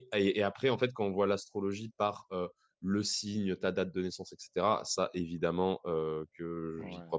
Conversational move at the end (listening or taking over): listening